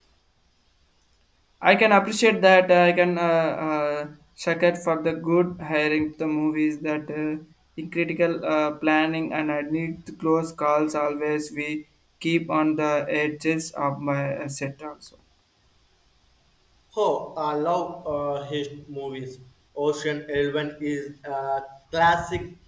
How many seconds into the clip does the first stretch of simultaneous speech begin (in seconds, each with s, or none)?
none